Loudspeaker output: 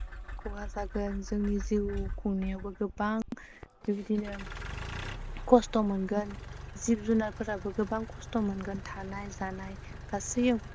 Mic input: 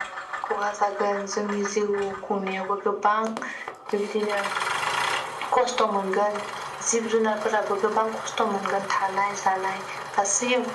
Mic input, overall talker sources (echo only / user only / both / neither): echo only